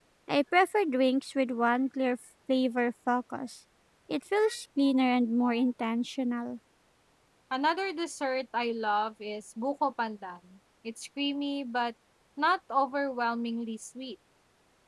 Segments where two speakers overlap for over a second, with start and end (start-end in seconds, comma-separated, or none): none